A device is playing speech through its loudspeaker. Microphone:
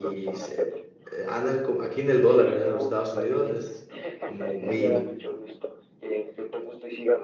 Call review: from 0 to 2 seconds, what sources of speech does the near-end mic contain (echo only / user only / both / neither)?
both